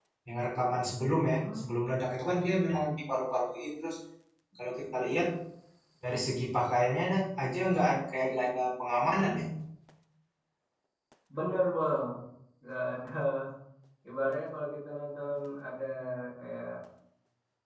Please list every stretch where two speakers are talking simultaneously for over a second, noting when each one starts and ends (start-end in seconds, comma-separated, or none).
none